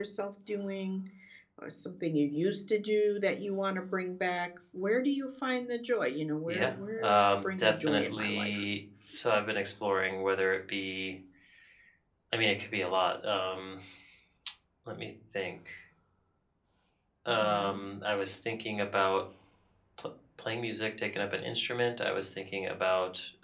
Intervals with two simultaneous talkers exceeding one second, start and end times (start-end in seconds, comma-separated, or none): 6.5-8.6